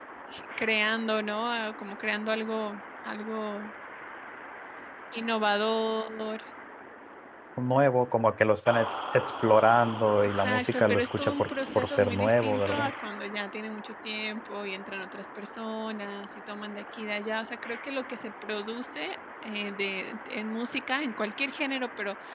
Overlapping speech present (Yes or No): Yes